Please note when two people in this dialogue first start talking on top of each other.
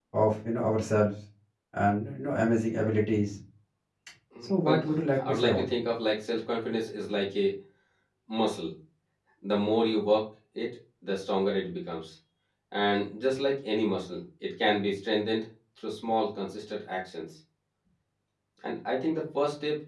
4.4 s

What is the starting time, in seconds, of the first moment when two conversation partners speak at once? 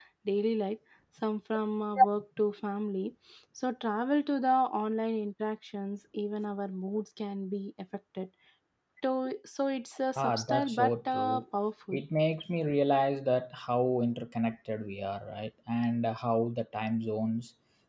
10.2 s

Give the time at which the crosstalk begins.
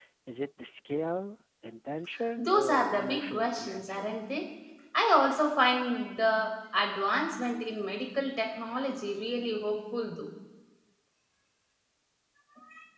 2.4 s

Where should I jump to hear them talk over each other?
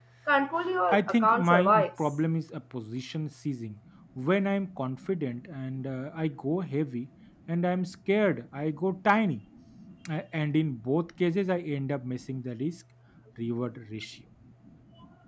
0.9 s

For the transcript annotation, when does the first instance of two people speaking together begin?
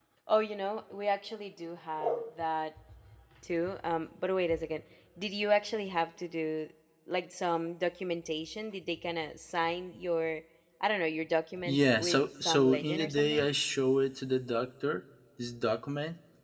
11.6 s

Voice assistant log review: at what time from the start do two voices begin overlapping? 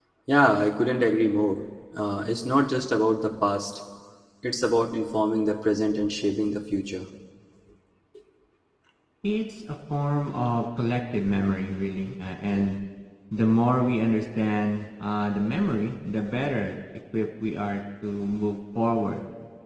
none

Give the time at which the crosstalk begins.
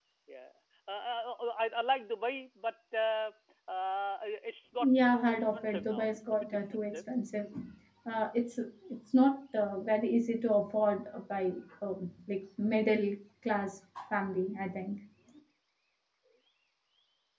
4.8 s

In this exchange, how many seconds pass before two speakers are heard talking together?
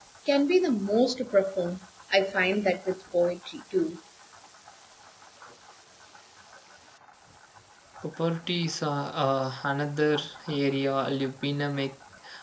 none

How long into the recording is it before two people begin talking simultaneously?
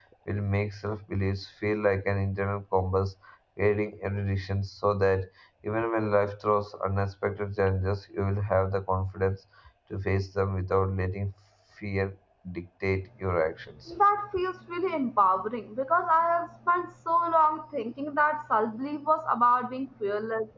none

